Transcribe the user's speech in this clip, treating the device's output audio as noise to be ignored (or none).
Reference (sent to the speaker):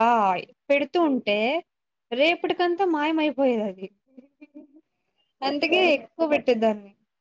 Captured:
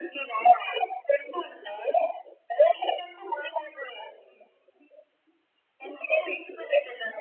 none